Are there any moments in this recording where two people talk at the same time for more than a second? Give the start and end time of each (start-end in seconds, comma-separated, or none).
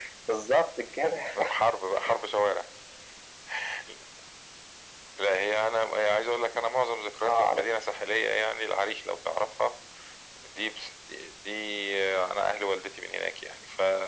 none